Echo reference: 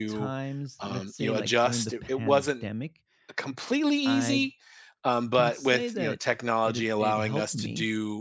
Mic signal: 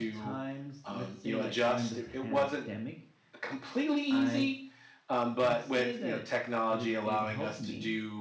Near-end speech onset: none

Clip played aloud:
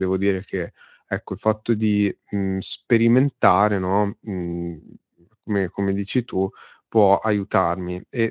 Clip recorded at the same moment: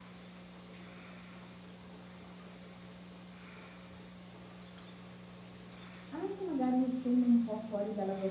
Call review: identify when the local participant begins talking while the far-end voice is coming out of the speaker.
6 s

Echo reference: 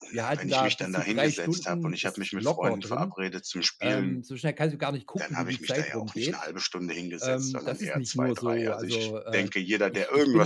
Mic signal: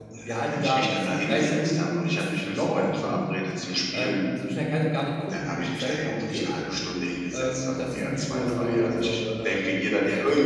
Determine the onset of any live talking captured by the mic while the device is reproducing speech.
none

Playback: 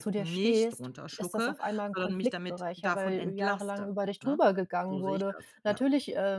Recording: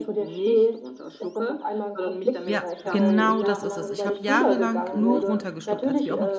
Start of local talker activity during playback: 2 s

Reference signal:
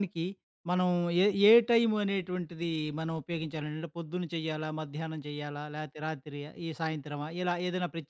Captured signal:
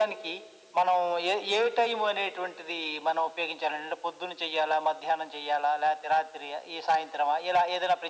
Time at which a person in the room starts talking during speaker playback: none

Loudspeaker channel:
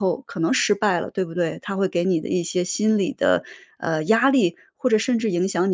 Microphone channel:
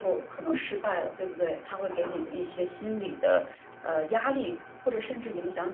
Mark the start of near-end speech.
none

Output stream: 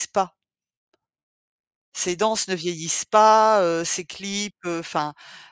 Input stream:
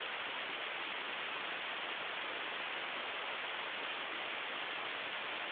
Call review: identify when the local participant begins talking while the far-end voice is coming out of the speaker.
none

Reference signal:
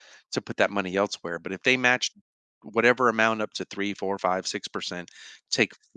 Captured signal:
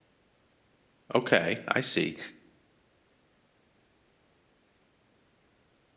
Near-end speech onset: 1 s

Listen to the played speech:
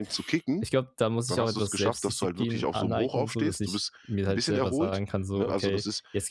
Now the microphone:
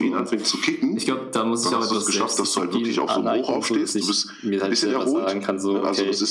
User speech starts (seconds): none

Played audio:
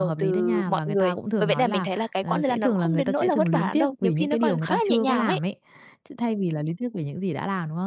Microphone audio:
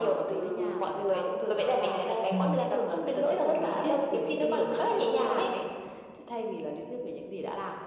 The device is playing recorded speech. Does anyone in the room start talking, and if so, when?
2 s

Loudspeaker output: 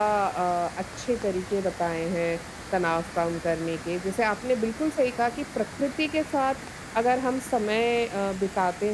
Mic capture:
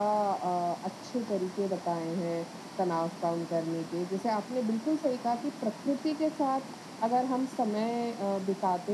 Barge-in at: none

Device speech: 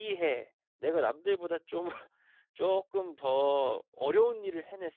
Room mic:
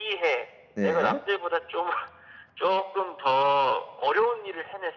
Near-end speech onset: 1 s

